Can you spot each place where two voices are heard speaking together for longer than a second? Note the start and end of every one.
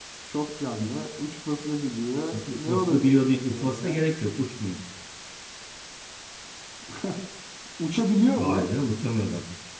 2.5-4.0

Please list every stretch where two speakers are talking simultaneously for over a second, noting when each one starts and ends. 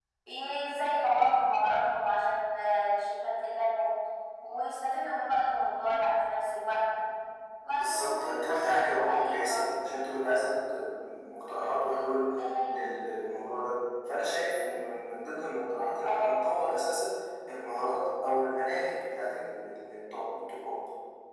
7.8-9.6

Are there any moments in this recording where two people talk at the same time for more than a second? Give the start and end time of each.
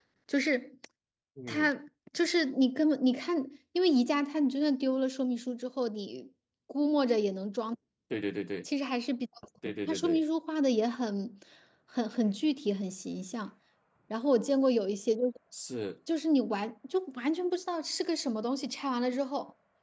none

